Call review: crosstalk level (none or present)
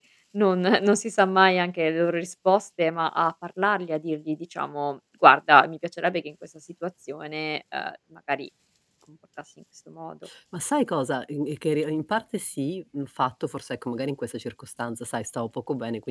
none